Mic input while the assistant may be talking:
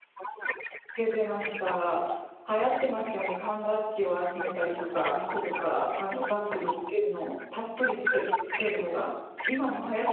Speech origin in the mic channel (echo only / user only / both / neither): both